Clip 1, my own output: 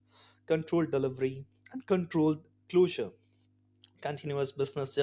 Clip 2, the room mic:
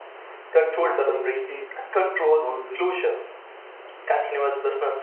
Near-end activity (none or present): present